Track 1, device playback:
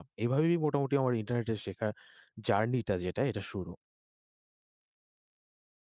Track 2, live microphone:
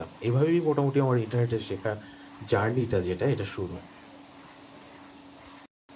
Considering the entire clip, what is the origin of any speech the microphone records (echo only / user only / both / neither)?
echo only